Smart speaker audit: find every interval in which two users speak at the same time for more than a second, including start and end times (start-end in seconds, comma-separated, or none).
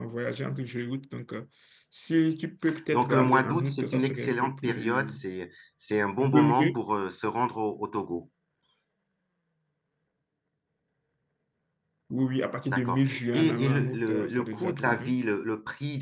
2.9-5.1, 12.7-15.1